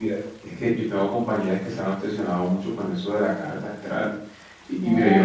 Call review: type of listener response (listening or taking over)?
listening